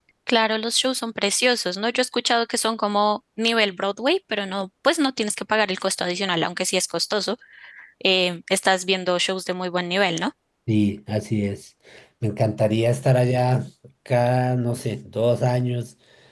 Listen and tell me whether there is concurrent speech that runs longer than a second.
No

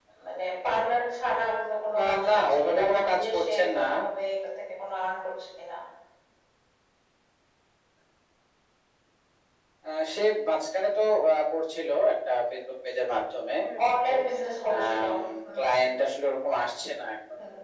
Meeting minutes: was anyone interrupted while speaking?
Yes, from 2.0 s

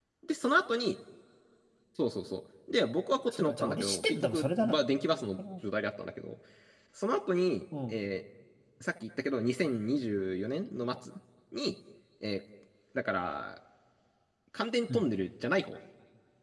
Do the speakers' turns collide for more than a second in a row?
Yes, from 3.3 s

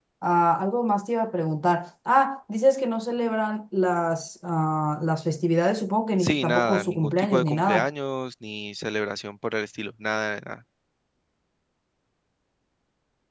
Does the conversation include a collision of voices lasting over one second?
Yes, from 6.2 s

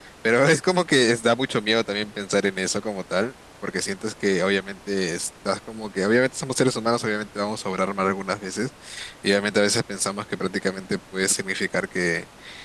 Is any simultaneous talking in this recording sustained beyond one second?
No

